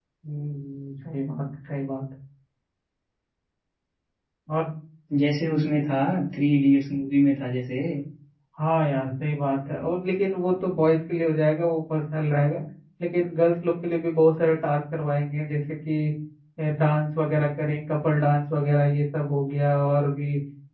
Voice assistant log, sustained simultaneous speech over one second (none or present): none